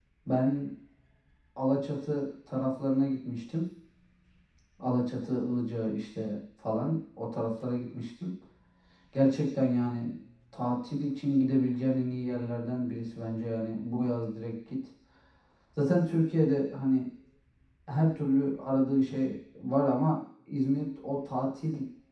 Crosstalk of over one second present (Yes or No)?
No